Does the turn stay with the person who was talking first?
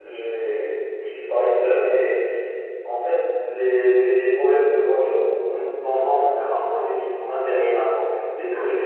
Yes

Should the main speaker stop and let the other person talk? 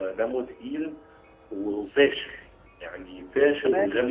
Yes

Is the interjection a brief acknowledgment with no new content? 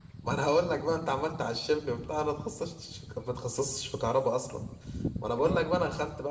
Yes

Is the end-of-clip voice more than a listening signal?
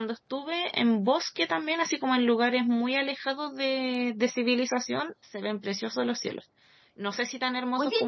No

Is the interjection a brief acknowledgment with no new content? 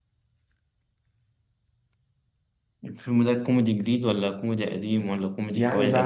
No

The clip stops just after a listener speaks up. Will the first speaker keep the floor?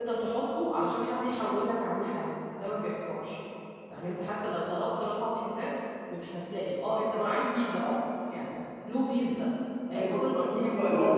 No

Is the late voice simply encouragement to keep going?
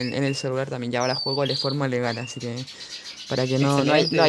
Yes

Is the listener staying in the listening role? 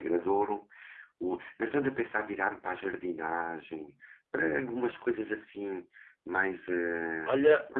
No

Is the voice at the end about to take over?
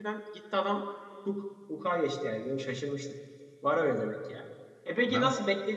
No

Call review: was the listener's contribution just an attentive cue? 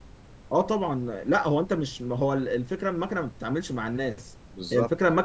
Yes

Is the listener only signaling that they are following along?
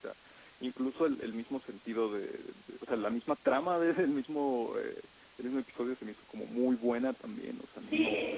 No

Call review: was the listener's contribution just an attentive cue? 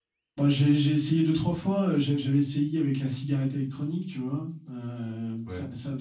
Yes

